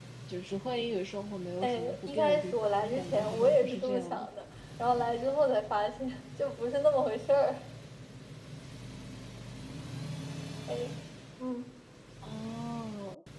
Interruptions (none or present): present